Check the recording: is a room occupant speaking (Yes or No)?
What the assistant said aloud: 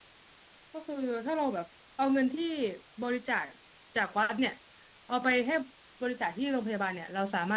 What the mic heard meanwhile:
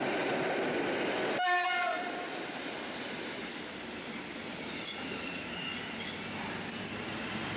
No